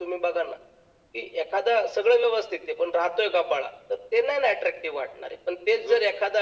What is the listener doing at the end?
listening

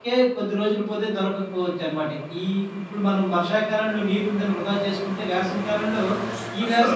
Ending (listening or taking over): listening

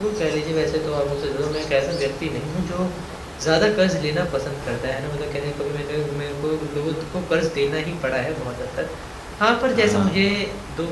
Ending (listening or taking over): listening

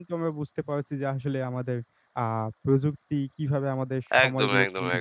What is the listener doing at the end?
taking over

